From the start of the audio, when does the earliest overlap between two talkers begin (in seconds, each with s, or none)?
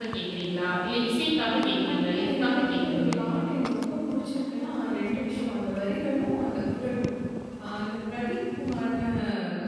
1.6 s